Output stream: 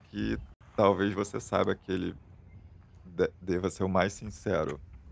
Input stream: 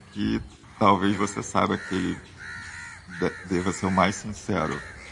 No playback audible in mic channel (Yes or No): No